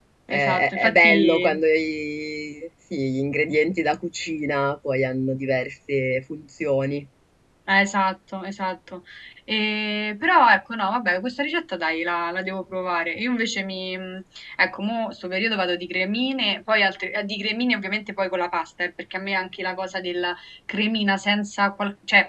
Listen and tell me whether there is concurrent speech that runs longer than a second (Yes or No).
Yes